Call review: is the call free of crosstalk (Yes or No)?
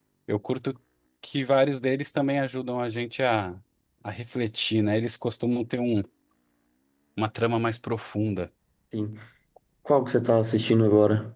Yes